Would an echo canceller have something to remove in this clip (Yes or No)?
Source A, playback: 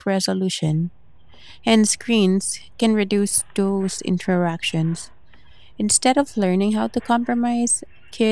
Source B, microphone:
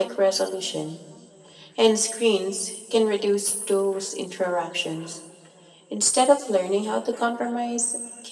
Yes